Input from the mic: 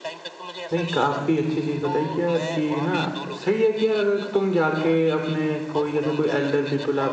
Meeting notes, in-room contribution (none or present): present